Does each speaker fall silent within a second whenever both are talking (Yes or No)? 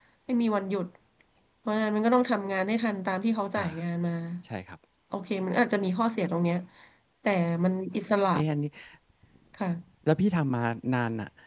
Yes